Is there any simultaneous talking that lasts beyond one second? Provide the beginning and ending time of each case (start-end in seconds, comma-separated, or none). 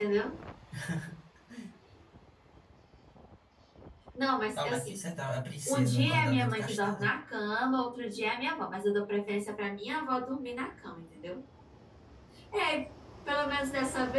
5.7-7.1